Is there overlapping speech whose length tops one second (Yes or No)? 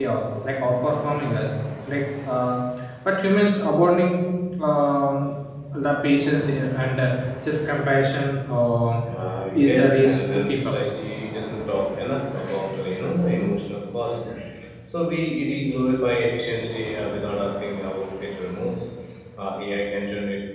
Yes